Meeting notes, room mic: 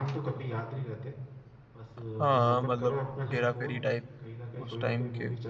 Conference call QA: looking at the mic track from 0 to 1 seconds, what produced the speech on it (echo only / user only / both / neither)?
echo only